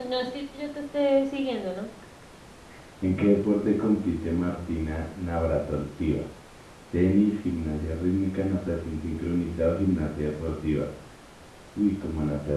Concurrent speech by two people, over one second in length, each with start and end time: none

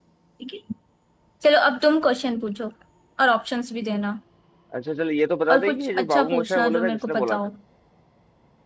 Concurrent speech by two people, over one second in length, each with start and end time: 5.5-7.4

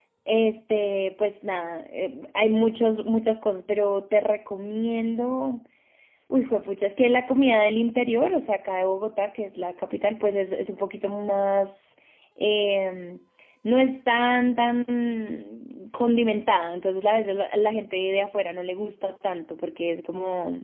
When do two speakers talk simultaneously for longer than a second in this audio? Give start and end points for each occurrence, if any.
none

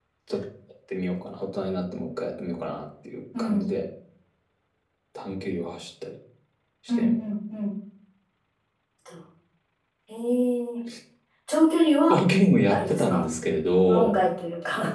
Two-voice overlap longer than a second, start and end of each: none

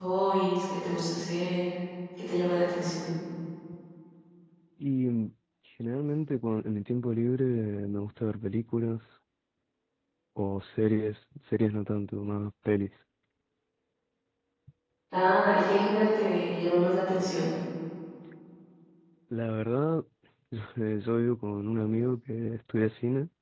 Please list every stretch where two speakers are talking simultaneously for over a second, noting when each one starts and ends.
none

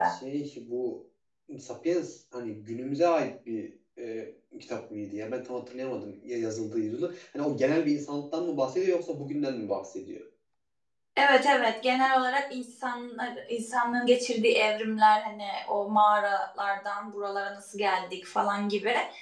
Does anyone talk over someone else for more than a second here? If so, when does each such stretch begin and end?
none

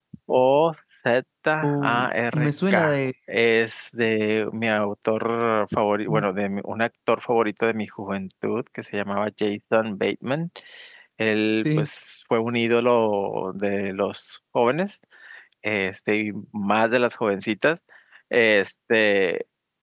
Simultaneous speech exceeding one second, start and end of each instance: 1.6-3.0

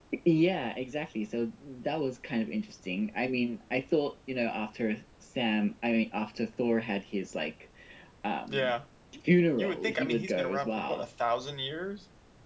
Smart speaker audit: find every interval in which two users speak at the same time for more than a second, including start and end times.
9.6-11.0

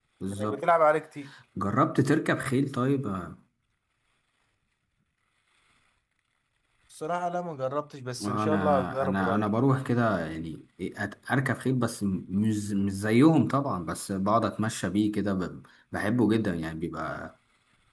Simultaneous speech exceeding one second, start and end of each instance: 8.2-9.5

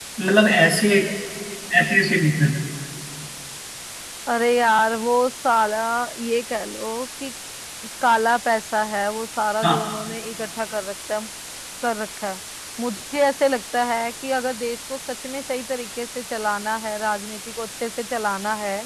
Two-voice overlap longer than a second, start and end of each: none

